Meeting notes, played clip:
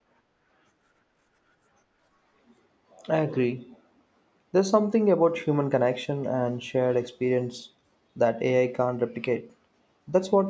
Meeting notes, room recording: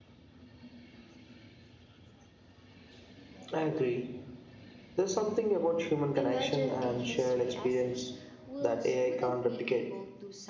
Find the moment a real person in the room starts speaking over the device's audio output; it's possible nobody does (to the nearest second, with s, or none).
6 s